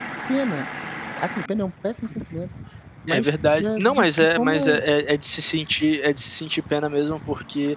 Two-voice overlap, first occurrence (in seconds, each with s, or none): 3.1 s